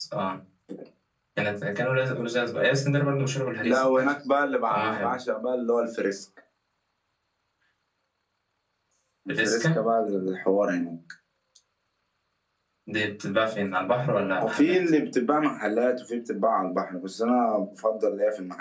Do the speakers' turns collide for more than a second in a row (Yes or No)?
No